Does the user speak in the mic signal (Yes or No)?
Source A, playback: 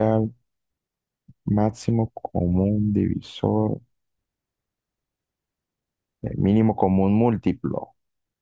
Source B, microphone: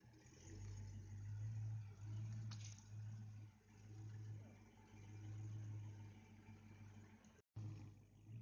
No